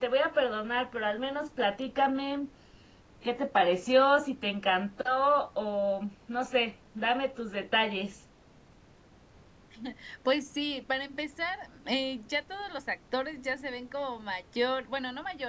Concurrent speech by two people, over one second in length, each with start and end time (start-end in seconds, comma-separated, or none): none